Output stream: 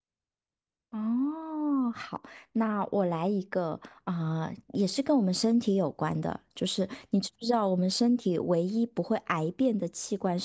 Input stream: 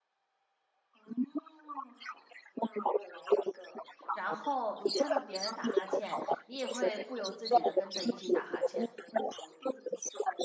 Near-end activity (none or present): present